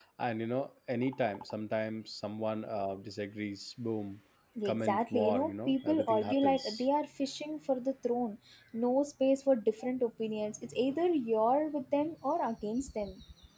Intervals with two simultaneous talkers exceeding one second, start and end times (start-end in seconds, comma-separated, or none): 4.6-6.8